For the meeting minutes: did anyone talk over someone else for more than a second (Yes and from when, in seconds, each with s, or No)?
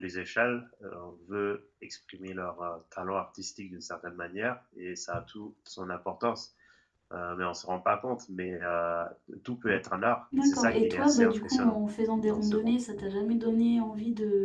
Yes, from 10.4 s